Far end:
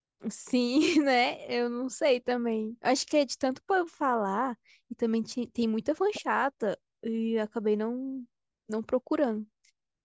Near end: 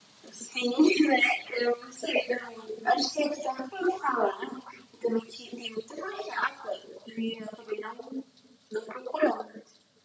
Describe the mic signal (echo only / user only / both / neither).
echo only